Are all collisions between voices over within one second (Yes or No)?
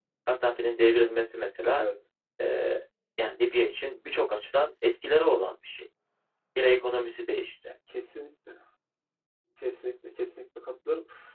Yes